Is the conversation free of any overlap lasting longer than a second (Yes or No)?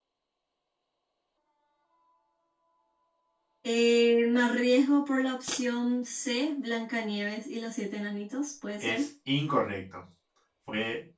Yes